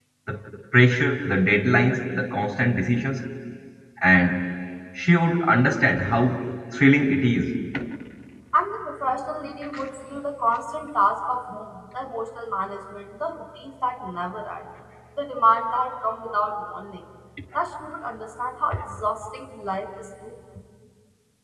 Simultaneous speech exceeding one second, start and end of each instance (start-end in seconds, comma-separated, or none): none